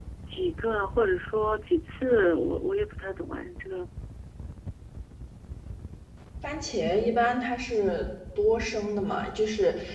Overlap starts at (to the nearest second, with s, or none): none